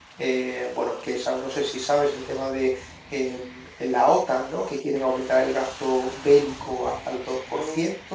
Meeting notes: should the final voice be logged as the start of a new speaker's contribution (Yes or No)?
No